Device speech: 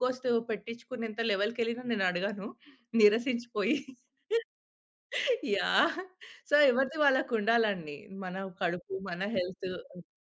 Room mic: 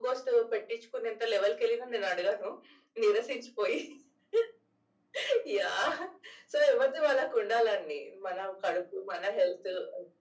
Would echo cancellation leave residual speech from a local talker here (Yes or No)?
No